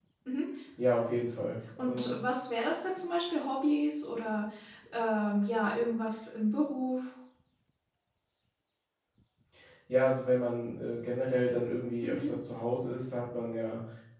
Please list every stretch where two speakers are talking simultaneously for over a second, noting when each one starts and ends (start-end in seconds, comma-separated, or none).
none